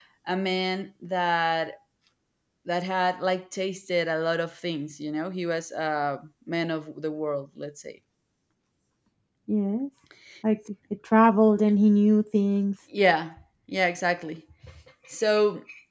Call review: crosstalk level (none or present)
none